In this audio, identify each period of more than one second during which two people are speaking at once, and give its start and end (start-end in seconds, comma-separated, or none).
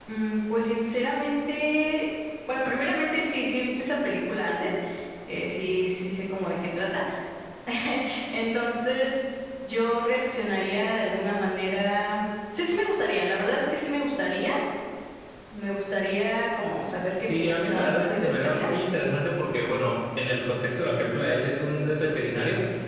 17.4-18.7